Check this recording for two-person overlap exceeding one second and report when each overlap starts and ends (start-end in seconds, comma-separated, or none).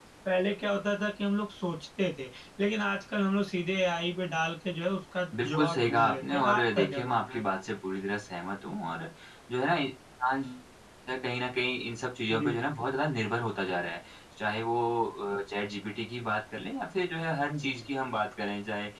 5.4-7.4